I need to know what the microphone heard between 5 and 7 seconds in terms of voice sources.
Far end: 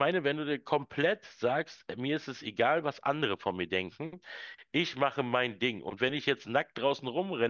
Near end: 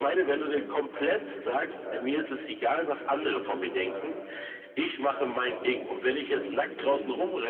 both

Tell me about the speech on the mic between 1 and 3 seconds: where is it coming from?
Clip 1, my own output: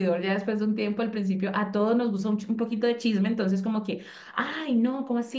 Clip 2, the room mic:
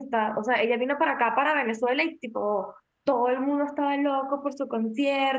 user only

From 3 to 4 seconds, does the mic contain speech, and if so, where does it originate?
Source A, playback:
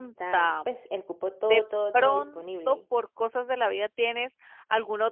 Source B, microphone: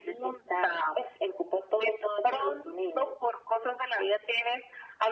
echo only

